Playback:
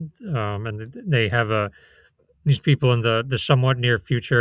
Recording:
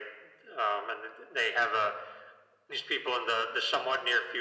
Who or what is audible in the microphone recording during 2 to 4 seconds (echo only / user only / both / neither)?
echo only